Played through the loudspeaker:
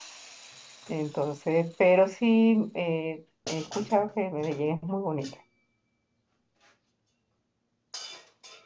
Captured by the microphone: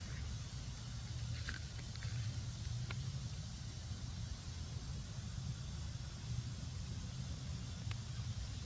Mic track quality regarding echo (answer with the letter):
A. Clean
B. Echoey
A